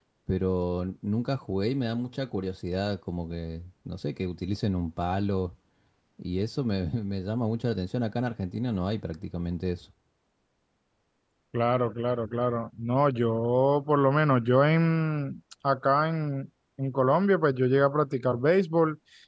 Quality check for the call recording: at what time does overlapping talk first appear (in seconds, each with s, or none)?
none